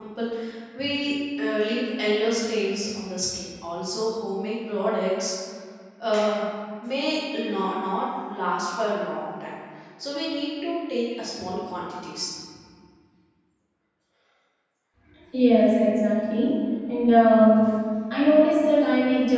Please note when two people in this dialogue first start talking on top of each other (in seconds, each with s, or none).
none